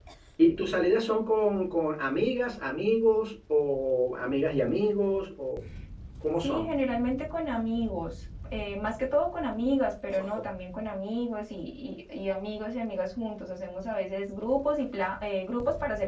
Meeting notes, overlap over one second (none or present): none